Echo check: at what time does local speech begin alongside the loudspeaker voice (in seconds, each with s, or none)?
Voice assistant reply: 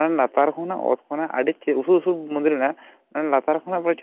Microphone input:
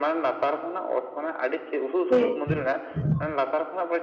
2.1 s